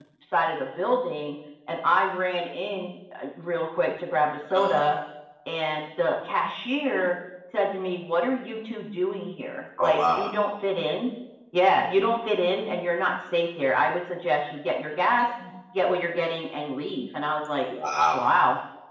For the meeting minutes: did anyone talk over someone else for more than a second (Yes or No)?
No